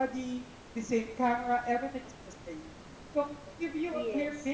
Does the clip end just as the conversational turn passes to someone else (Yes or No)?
No